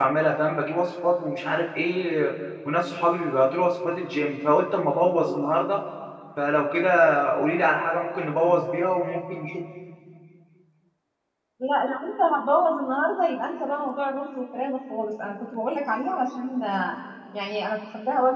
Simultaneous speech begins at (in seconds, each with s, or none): none